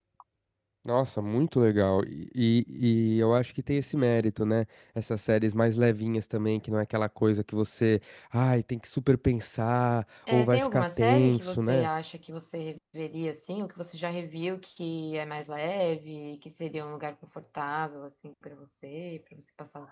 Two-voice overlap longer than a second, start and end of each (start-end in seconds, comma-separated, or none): 10.3-11.9